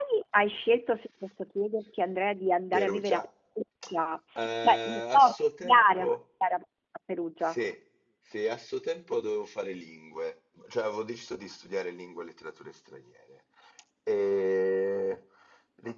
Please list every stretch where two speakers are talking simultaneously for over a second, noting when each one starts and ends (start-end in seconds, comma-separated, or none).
4.4-6.2